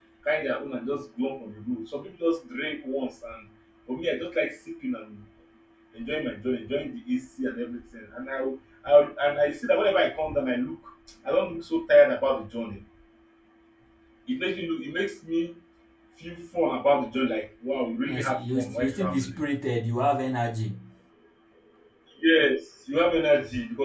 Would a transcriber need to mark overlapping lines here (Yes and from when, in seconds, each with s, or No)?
Yes, from 18.1 s